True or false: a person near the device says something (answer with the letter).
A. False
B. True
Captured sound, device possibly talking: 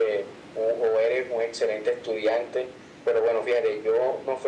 A